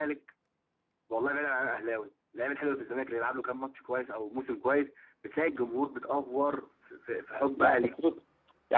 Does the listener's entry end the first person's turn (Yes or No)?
Yes